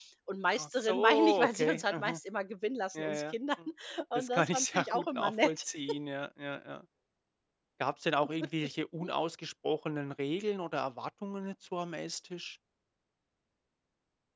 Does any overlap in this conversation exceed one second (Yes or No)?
Yes